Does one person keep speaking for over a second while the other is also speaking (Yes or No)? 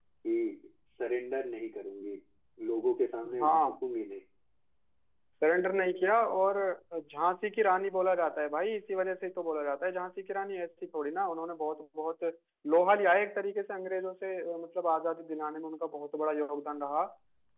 No